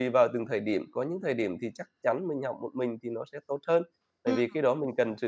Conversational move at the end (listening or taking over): listening